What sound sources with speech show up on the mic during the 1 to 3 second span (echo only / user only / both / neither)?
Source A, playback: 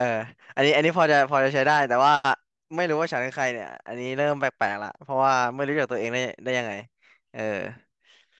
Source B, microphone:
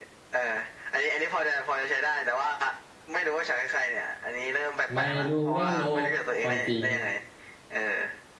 echo only